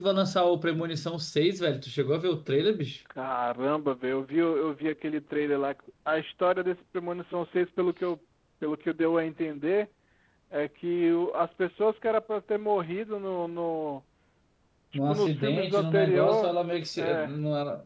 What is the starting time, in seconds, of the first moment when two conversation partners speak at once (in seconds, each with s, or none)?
15.1 s